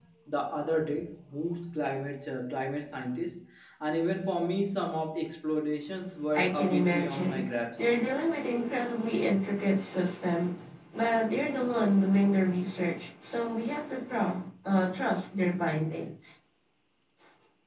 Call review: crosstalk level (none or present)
present